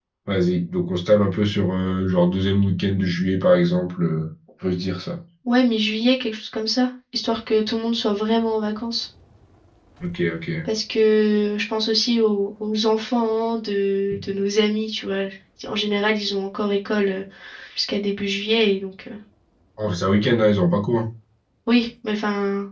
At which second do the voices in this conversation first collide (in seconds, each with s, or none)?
none